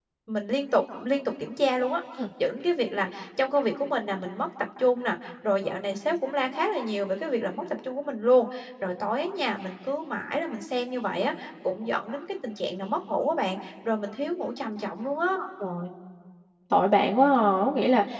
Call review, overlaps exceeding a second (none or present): none